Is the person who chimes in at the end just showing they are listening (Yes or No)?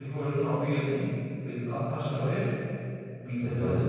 Yes